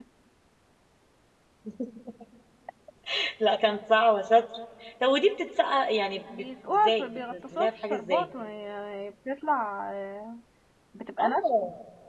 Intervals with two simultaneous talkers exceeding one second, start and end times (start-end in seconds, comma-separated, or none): 6.3-8.3